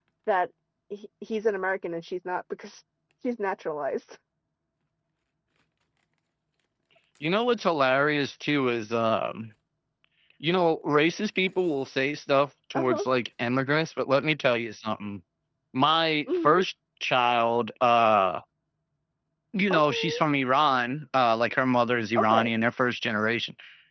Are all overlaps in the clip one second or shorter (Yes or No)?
Yes